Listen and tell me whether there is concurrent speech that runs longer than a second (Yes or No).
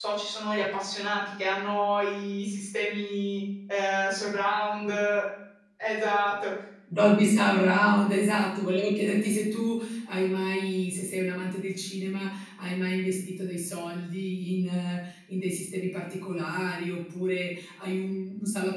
No